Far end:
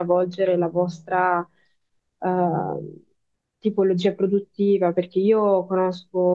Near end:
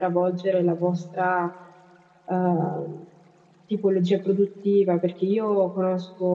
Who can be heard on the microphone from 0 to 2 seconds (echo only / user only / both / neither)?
echo only